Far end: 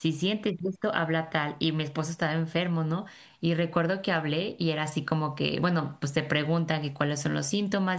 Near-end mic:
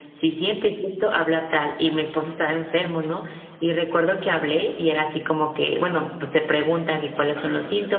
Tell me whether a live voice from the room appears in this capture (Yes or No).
Yes